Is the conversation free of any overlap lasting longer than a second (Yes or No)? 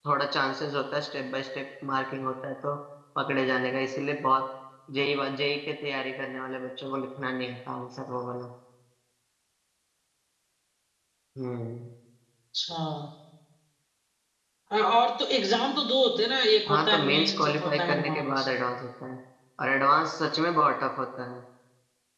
No